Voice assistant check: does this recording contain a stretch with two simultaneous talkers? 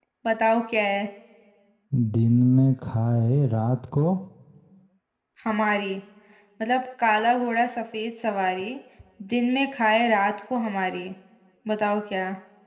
No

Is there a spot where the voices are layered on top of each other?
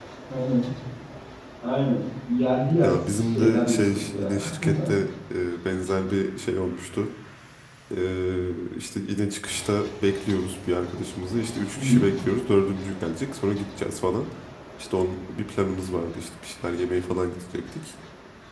Yes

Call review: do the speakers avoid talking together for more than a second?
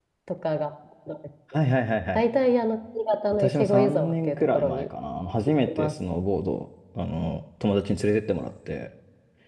No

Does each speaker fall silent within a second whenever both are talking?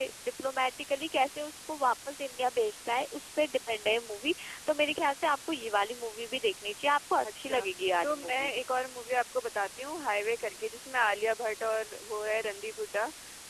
Yes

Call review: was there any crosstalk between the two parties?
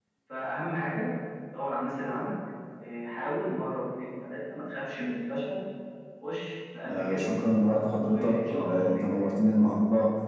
Yes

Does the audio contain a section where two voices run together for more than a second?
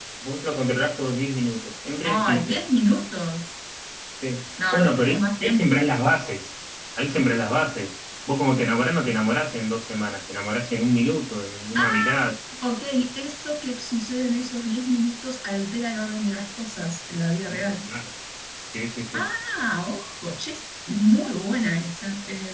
Yes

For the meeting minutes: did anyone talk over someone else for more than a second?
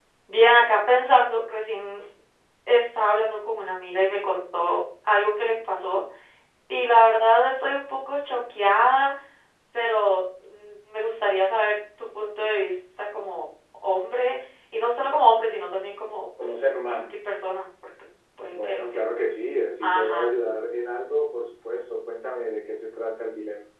No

